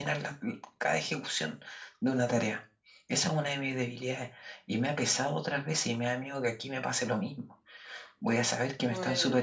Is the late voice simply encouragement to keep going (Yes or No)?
Yes